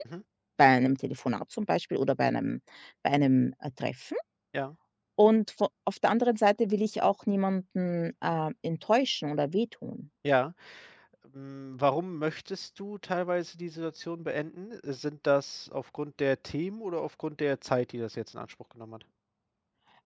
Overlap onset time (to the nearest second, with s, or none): none